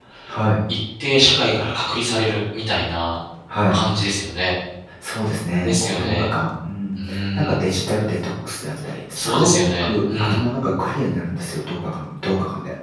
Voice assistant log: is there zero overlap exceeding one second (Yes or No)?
No